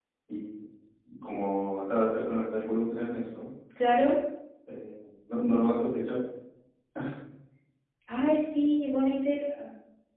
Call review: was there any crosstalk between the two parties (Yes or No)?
No